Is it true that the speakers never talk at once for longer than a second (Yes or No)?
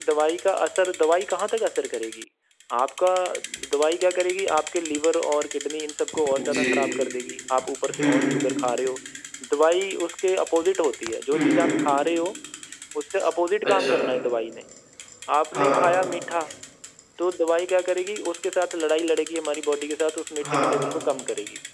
Yes